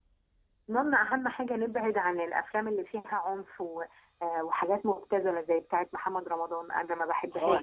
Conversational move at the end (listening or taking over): taking over